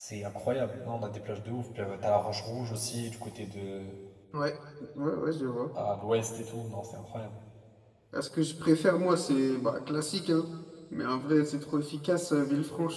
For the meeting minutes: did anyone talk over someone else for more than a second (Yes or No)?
No